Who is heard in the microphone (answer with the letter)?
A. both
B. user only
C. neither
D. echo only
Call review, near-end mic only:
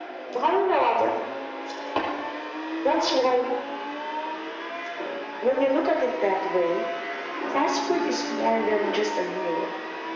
D